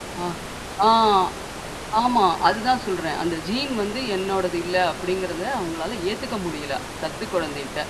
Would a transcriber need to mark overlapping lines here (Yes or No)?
No